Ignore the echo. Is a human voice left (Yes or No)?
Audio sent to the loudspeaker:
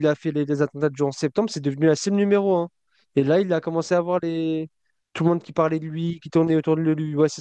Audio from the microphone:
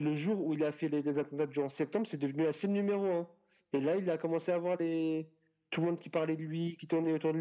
No